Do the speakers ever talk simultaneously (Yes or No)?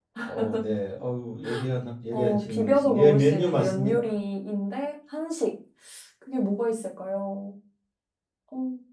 Yes